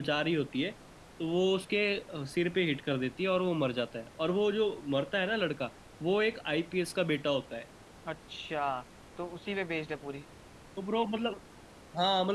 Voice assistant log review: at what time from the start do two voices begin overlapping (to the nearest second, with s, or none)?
none